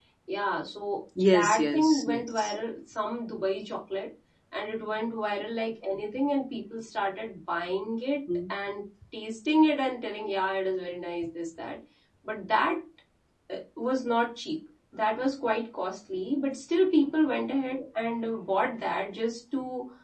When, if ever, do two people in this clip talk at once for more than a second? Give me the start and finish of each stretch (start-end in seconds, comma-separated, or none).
1.2-2.5